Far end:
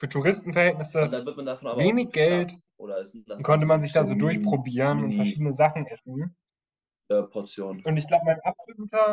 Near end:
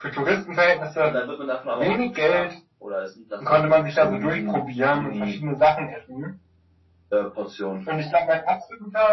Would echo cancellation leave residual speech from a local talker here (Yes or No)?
No